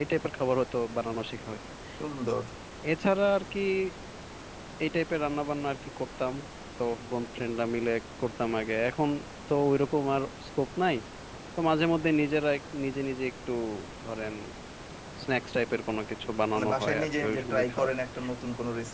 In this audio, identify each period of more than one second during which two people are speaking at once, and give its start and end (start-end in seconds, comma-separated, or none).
16.5-17.9